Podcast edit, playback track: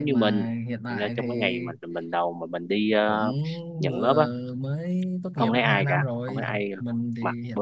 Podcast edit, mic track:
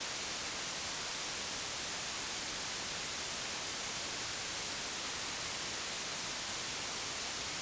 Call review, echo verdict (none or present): none